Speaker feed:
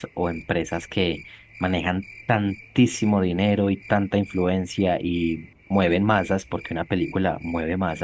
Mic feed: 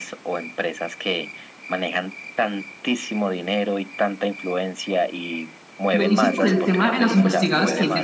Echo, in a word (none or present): present